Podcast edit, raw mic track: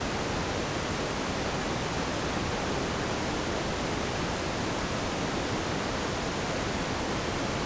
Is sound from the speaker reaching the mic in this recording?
No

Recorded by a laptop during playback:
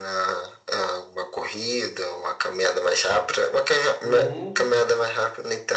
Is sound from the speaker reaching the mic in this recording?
Yes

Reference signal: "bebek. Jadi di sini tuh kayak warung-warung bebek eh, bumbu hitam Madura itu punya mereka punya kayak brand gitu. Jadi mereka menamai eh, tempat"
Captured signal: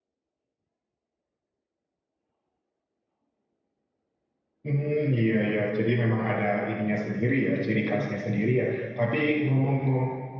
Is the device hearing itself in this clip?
No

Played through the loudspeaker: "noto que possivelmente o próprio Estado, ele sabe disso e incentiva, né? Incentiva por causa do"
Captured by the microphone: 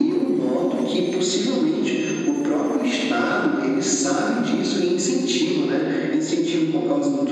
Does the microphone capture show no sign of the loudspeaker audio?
No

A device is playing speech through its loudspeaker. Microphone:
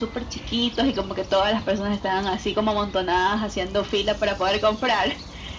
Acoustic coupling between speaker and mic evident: Yes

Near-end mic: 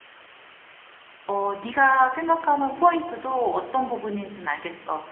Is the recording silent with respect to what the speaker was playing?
Yes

